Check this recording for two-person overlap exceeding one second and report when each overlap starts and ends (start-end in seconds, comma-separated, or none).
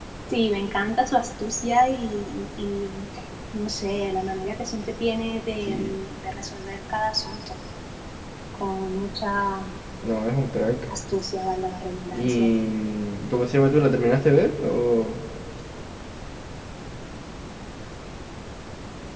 none